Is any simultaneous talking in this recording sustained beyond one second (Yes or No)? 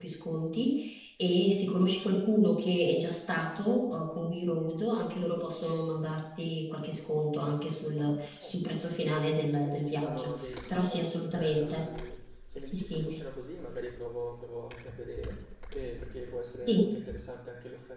Yes